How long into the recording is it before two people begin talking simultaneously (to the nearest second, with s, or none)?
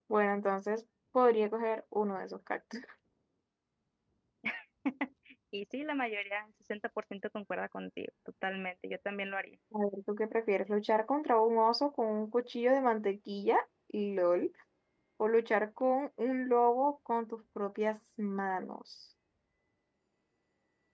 none